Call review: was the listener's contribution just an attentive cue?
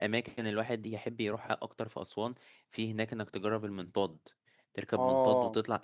Yes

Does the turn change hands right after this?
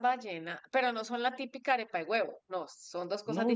Yes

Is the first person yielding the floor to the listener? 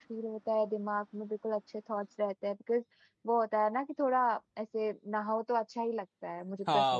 Yes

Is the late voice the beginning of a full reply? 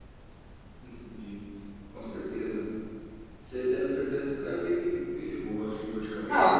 Yes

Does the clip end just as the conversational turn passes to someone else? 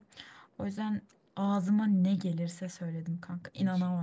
Yes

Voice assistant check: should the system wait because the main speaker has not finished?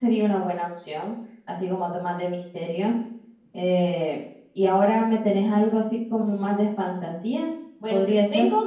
No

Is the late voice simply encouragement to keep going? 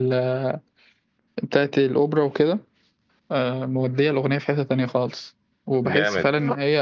Yes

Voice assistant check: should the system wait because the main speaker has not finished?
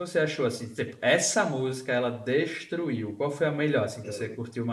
No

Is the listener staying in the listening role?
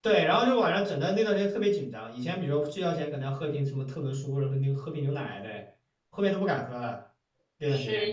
No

